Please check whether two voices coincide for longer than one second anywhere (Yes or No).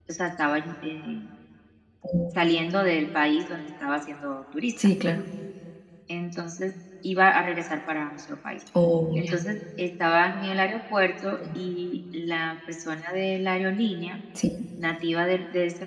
No